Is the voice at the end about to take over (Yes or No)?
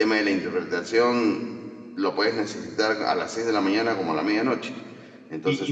Yes